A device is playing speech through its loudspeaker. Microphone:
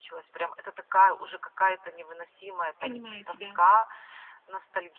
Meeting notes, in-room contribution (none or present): present